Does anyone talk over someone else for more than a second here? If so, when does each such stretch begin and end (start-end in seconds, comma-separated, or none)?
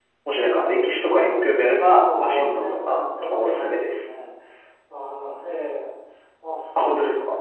1.9-4.0